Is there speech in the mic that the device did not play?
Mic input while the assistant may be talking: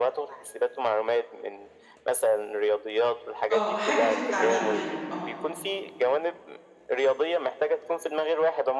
Yes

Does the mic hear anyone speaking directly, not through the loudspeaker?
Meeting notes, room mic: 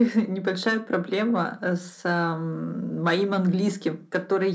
No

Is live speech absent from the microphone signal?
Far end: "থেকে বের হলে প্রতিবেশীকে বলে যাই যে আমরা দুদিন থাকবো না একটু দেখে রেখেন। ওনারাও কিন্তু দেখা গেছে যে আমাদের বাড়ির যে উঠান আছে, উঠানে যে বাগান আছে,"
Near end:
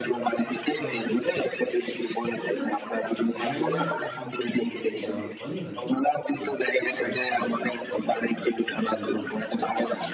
No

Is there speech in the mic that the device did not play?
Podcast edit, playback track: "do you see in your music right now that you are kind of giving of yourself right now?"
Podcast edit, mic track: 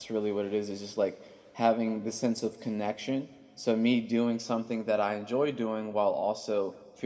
Yes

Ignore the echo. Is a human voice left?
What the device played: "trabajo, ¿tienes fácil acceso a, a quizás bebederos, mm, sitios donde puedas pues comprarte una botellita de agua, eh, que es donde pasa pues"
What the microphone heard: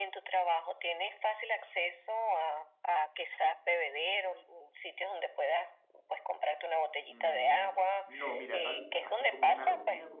Yes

